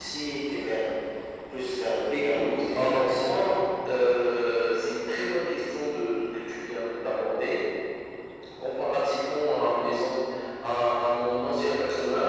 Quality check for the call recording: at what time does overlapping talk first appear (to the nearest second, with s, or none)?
2 s